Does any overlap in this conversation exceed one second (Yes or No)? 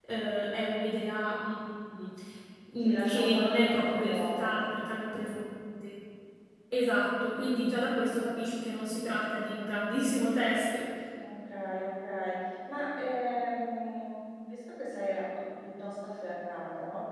Yes